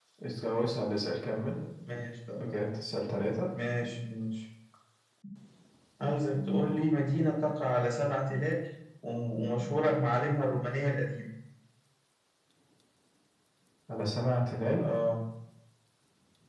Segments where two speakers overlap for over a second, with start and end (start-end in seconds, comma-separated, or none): none